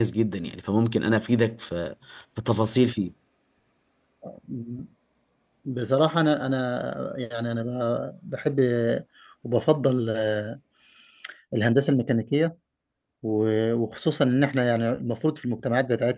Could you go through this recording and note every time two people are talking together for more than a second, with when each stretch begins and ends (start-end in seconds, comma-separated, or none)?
none